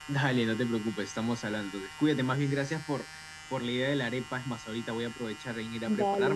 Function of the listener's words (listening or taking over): listening